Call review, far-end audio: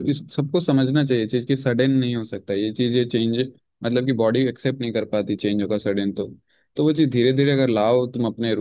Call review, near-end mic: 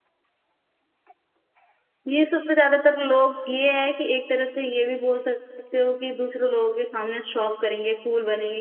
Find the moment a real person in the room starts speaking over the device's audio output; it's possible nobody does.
2.1 s

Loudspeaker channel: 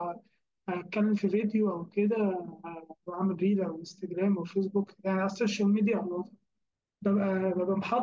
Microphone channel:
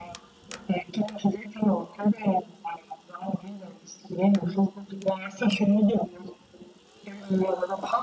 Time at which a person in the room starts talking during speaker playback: none

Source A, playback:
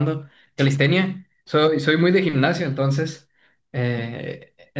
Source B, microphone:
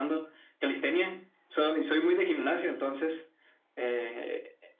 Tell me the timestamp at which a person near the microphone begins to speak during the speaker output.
none

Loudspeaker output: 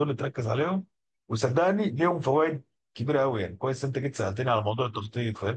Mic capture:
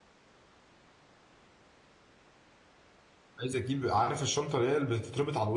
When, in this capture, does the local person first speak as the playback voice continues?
3.4 s

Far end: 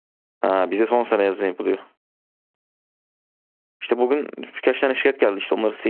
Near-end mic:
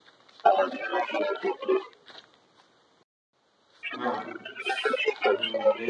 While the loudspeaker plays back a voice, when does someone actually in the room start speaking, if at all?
3.9 s

